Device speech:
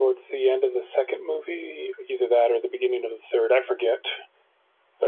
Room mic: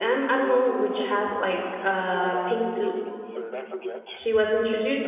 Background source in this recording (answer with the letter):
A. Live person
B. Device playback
B